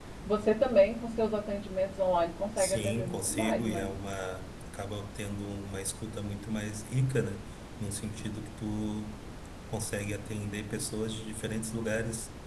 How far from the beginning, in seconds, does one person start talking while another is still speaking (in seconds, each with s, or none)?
2.6 s